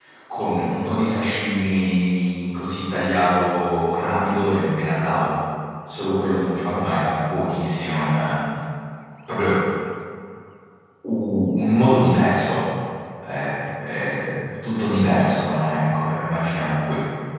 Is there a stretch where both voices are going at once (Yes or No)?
No